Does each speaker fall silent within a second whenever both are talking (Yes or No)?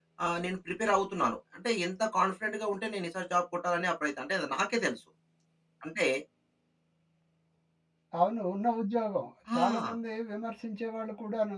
Yes